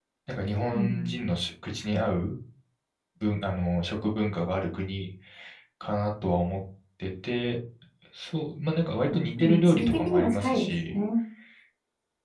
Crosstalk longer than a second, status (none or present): present